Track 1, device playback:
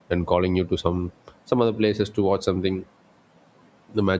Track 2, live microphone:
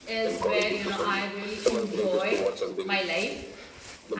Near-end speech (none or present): present